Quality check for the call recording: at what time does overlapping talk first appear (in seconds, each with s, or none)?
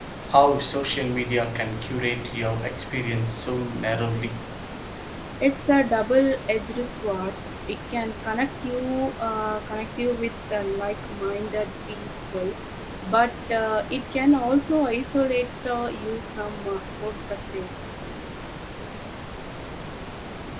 none